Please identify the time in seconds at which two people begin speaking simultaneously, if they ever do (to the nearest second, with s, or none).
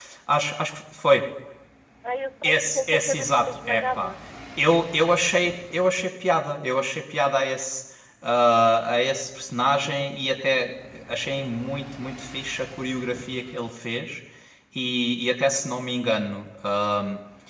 2 s